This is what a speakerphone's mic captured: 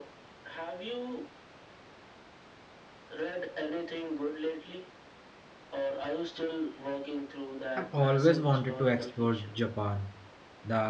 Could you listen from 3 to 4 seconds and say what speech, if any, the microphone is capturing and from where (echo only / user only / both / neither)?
echo only